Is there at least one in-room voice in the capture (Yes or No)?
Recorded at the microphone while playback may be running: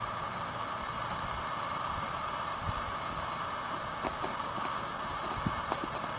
No